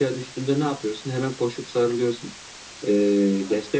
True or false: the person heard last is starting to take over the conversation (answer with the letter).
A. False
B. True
A